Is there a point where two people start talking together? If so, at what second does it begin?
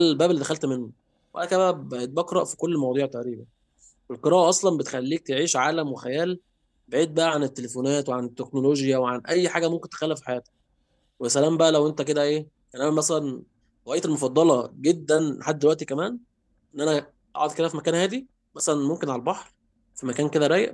none

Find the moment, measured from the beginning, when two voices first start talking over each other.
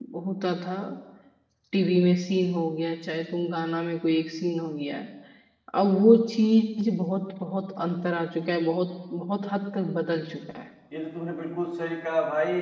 none

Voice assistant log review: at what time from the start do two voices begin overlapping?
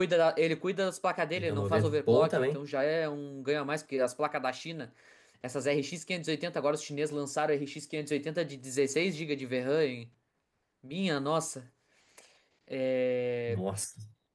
1.4 s

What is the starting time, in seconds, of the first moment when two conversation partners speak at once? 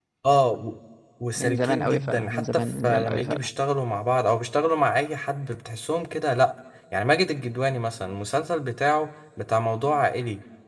1.4 s

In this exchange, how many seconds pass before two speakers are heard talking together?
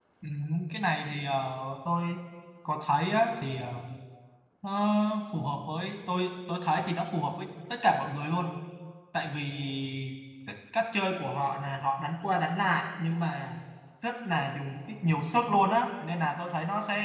none

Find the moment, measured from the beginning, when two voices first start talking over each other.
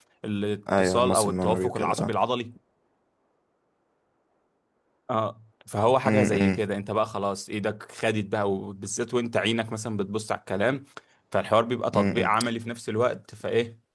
0.8 s

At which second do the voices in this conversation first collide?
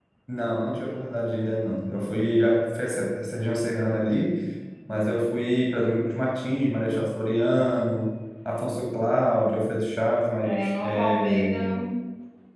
10.4 s

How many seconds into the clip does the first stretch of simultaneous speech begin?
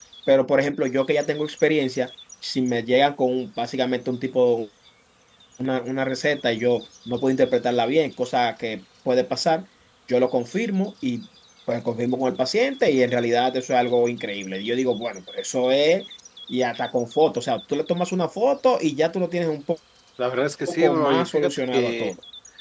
20.7 s

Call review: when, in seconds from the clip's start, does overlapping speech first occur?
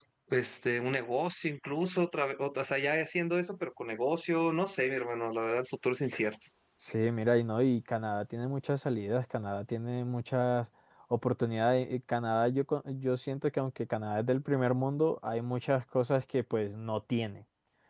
none

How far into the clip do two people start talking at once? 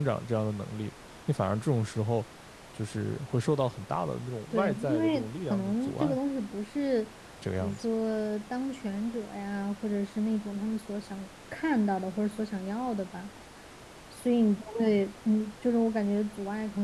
4.5 s

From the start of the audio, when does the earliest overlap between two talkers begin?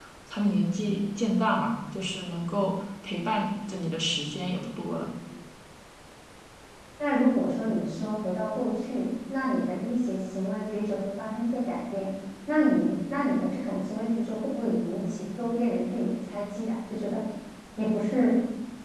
none

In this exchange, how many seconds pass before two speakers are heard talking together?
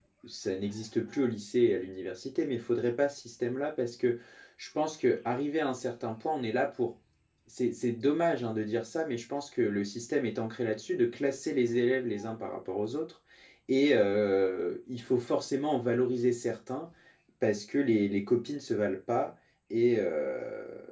none

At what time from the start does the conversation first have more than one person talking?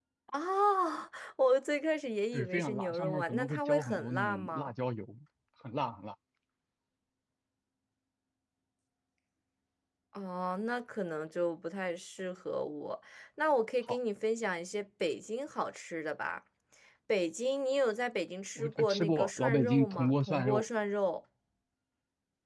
2.3 s

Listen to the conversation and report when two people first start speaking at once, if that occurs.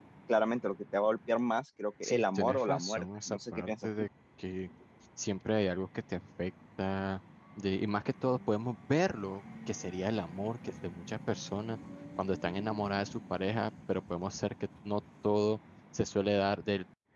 2.0 s

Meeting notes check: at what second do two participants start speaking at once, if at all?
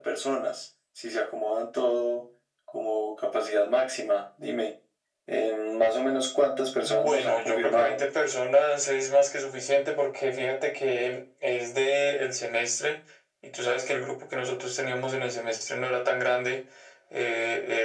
6.8 s

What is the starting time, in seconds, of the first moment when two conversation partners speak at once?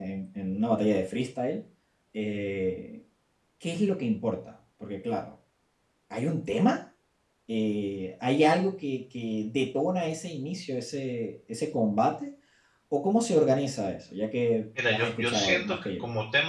14.8 s

